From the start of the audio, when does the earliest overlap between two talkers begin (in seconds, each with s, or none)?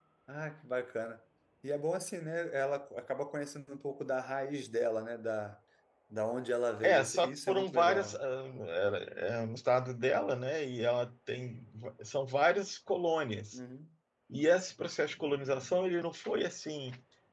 6.8 s